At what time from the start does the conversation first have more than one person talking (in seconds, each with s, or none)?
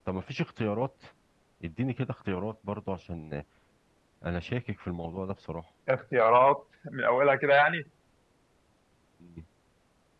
none